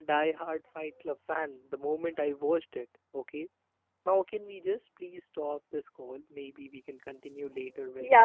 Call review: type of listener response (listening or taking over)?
taking over